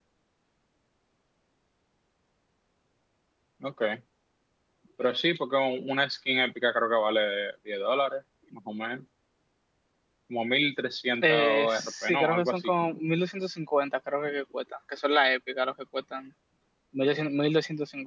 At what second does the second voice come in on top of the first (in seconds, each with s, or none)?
11.2 s